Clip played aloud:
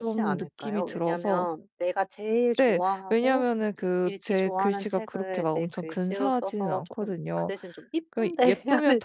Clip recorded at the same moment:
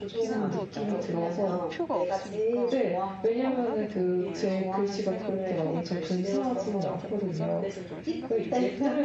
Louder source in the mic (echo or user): echo